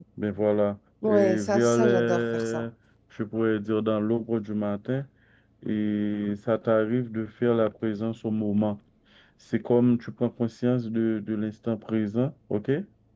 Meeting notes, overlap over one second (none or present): present